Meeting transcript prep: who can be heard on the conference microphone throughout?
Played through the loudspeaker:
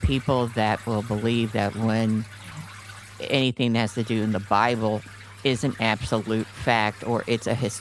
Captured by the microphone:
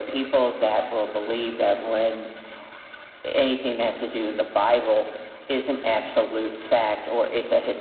echo only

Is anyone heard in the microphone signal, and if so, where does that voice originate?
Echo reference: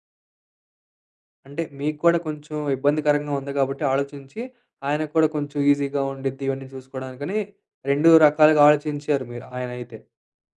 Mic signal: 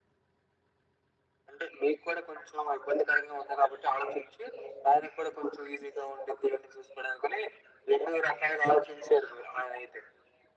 echo only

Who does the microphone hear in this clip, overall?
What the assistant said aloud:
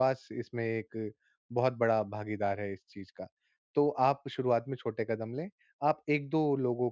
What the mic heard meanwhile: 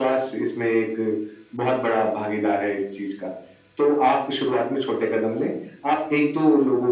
echo only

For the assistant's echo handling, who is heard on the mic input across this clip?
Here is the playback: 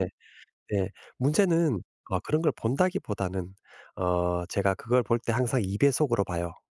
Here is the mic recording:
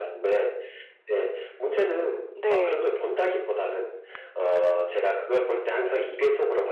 both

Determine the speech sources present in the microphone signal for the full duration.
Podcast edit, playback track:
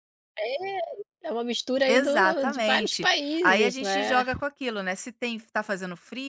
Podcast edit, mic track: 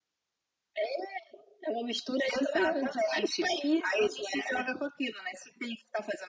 echo only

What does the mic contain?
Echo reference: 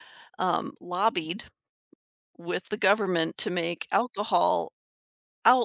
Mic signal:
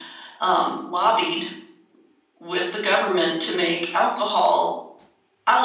echo only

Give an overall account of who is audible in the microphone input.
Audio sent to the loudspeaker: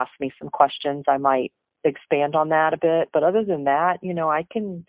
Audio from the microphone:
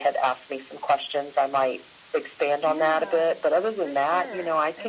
both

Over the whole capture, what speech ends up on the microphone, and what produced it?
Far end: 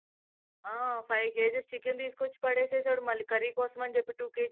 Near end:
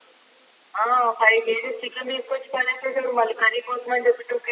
echo only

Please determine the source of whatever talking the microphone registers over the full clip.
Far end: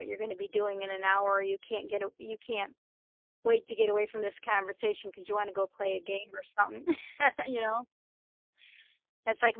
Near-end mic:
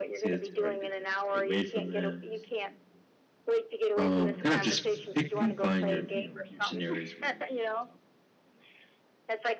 both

